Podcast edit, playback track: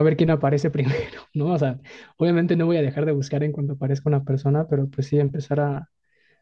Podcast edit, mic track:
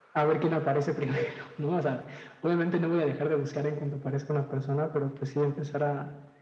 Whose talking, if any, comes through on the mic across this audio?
echo only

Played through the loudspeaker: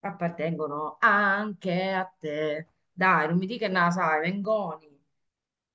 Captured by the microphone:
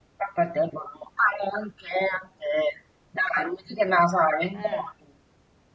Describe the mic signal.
both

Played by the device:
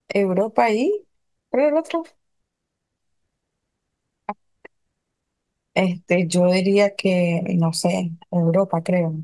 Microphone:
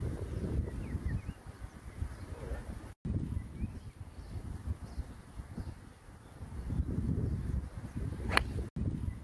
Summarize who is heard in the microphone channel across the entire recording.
neither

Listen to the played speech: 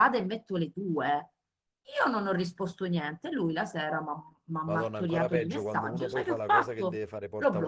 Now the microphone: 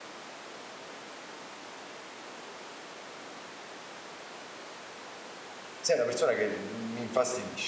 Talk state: user only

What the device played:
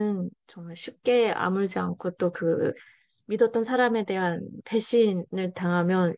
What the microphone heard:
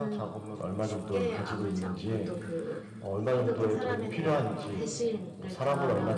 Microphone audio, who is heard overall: both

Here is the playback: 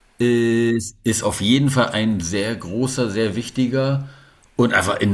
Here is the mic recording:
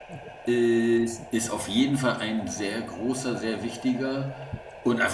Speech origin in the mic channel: echo only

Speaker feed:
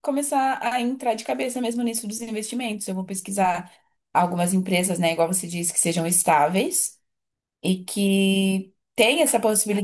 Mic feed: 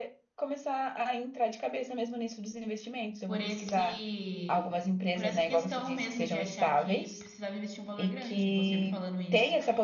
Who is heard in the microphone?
both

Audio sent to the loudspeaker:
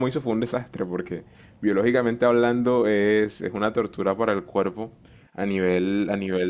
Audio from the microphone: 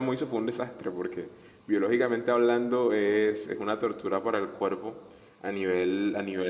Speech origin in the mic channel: echo only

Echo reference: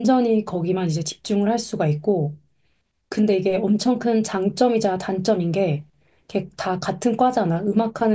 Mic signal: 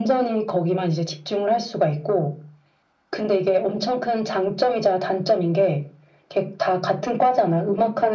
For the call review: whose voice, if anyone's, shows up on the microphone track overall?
echo only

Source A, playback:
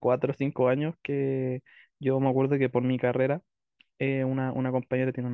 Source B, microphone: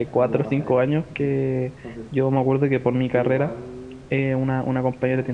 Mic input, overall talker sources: both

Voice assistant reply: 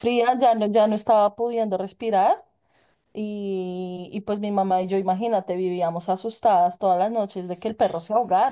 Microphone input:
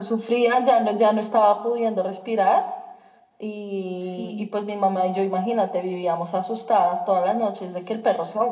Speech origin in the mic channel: both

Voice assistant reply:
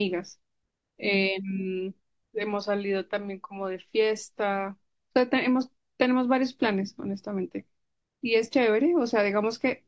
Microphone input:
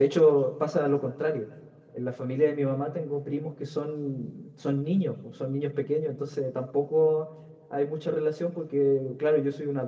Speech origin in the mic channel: user only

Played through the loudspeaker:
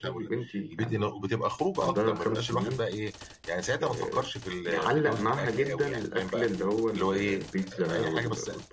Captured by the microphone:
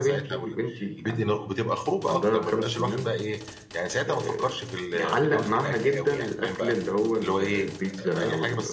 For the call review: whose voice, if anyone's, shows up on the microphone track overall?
echo only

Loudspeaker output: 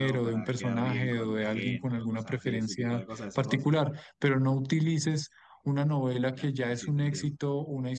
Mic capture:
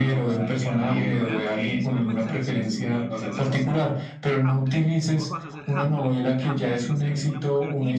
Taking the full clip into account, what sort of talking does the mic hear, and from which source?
both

